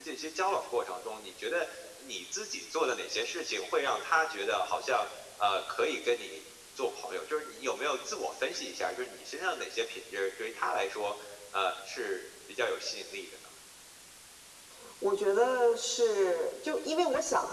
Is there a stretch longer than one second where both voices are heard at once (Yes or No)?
No